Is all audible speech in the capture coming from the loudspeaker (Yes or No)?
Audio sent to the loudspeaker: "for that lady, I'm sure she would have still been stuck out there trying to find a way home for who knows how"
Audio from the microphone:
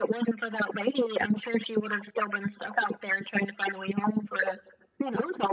Yes